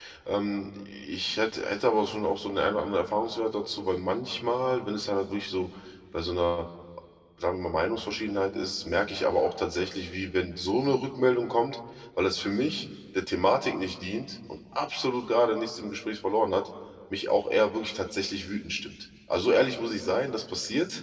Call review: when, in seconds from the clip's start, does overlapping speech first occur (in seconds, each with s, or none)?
none